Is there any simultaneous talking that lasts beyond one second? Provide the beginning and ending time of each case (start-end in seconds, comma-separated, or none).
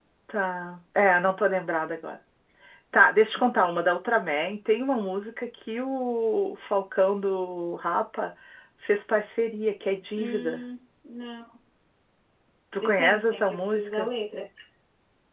12.8-14.1